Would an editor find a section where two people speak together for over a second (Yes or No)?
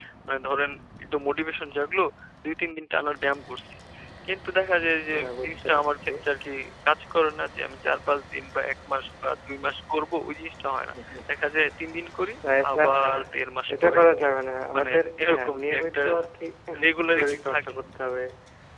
Yes